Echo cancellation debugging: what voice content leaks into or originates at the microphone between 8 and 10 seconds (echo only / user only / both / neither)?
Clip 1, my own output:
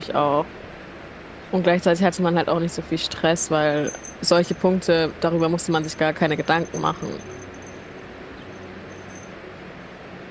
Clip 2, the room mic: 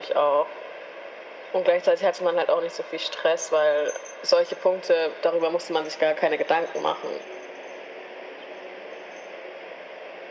neither